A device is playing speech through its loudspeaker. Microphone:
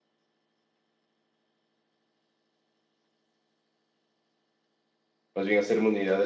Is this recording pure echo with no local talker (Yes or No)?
No